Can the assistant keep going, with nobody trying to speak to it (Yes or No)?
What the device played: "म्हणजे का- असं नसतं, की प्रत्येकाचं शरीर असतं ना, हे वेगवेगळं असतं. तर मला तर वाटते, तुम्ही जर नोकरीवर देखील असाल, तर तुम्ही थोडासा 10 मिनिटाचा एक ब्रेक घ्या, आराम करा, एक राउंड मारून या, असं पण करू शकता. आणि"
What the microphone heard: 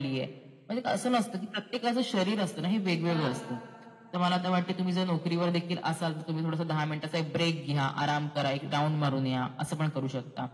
No